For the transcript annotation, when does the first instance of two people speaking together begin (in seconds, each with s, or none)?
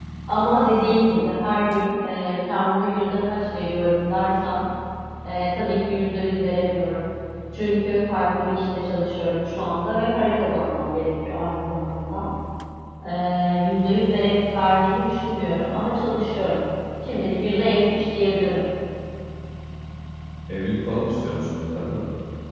none